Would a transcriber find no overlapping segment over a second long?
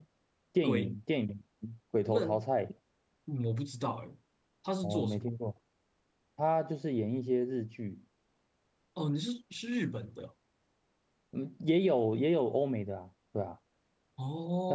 Yes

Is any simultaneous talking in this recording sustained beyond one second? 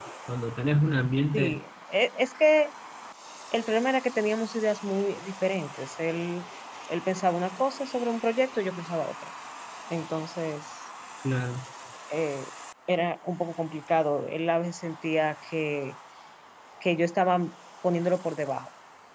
No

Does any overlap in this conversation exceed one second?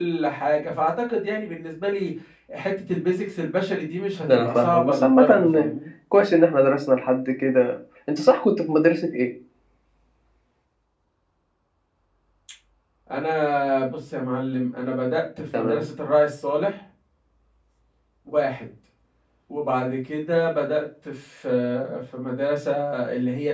Yes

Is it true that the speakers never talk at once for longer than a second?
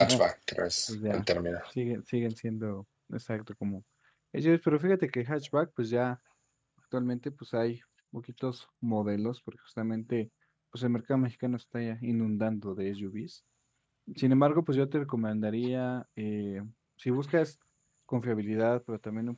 Yes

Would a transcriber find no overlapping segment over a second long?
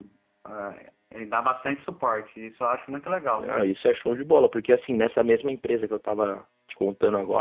Yes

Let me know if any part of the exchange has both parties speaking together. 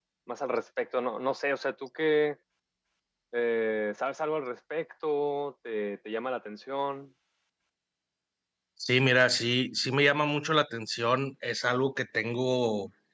No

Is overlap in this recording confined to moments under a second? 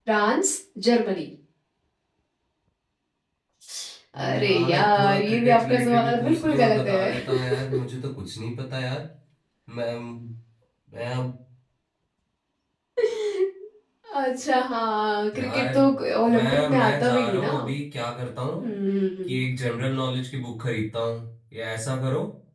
No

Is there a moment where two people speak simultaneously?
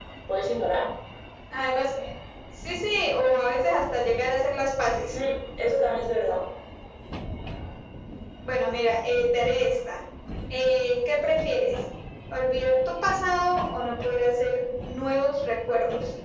No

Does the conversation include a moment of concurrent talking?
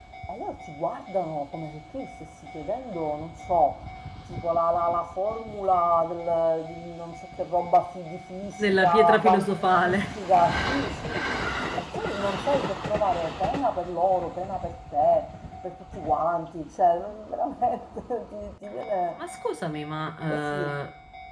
Yes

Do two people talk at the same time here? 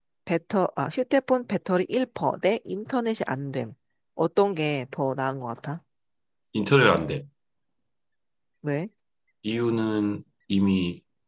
No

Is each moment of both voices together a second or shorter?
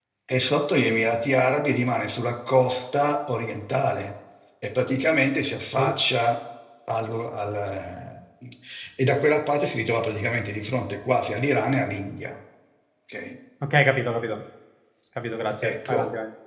Yes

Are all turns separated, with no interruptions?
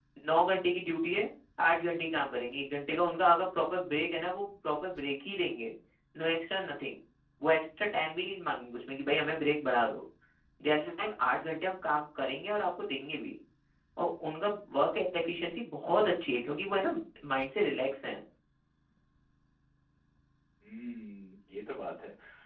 Yes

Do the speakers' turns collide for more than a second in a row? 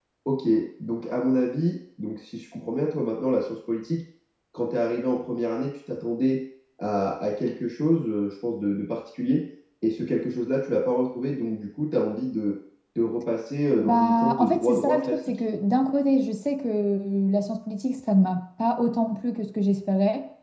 Yes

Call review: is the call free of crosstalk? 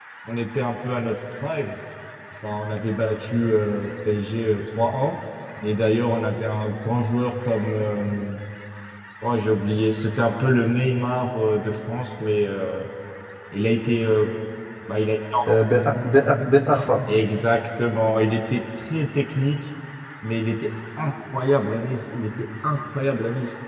Yes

